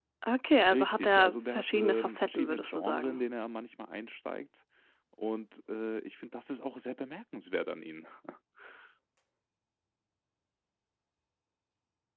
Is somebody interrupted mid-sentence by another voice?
Yes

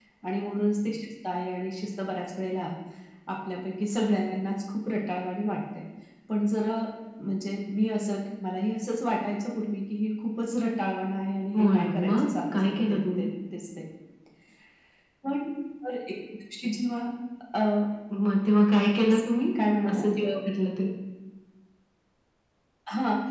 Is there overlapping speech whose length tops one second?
Yes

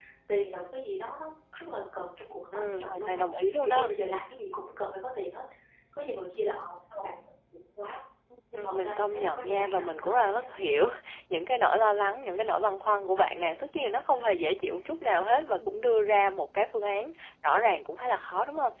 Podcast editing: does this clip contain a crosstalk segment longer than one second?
Yes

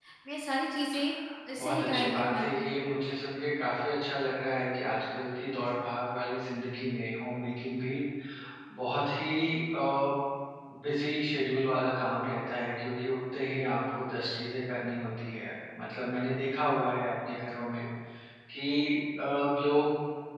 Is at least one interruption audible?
Yes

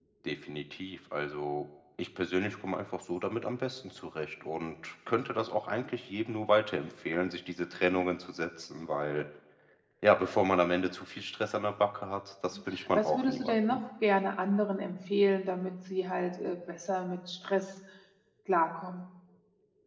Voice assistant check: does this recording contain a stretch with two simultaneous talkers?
Yes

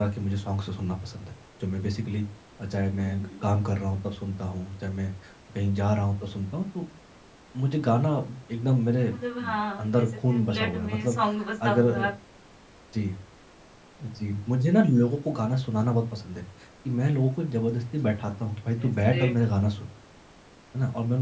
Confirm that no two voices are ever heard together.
No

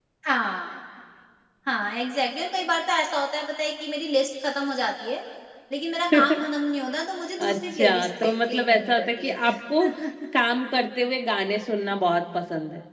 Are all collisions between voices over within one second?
No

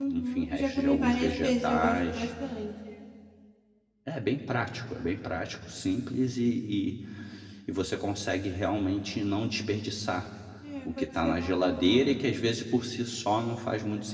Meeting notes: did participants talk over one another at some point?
Yes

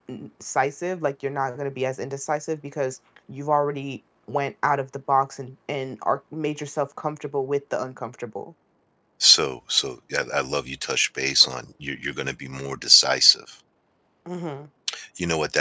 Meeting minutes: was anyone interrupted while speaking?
No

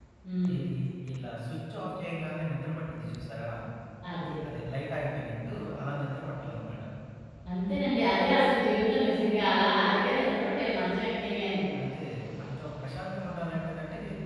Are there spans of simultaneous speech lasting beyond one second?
No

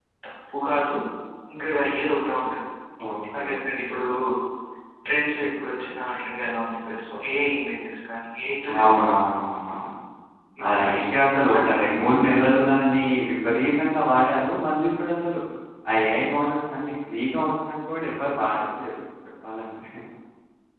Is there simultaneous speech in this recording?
Yes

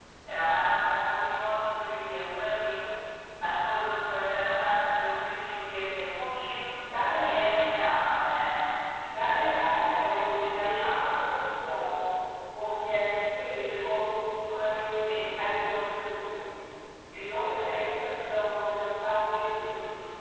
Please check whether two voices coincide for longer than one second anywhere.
Yes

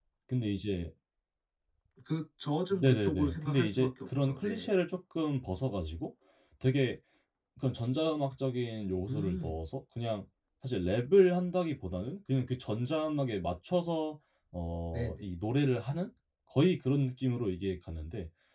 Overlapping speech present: Yes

